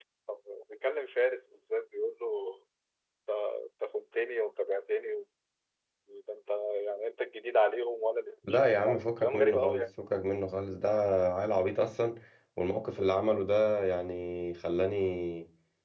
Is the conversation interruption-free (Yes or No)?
No